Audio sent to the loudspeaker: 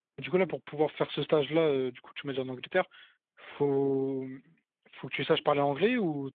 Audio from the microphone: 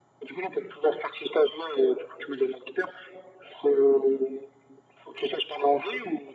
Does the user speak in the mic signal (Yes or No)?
No